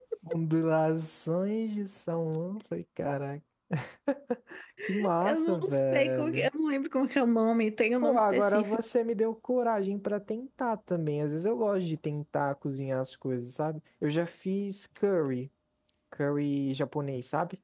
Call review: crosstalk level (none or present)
present